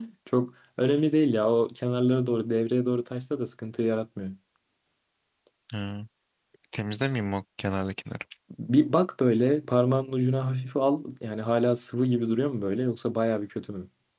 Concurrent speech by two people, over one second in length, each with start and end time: none

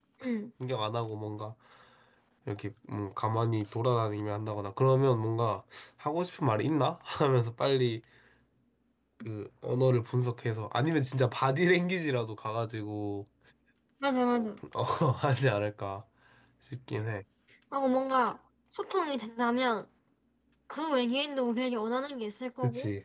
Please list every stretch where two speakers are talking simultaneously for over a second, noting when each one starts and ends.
none

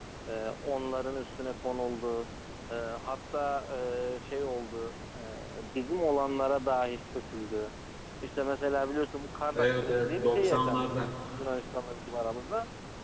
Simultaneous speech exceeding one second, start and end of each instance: 9.6-11.0

